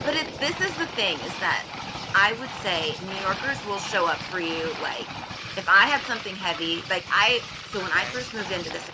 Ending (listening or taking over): listening